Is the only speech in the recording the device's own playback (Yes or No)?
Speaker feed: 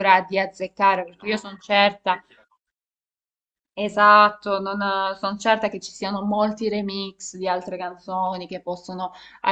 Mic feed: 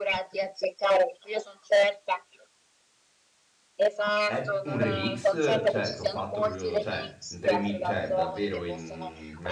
No